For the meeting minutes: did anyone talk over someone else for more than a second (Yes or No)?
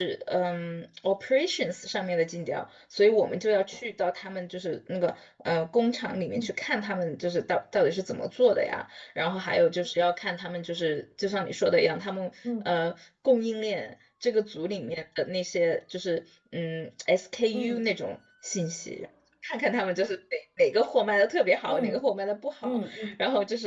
No